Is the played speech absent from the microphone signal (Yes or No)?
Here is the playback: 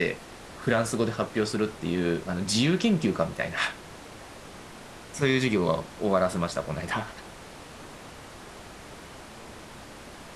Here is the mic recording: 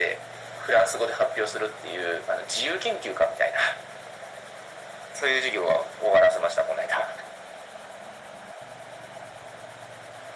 No